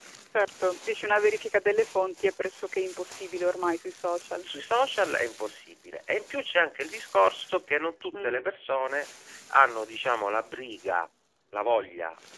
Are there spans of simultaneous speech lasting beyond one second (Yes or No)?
No